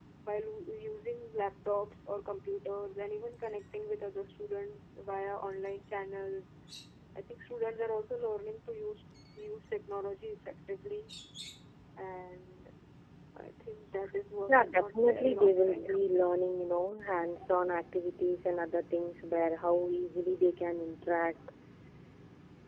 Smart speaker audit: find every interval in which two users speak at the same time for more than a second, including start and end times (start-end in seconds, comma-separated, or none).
14.5-15.9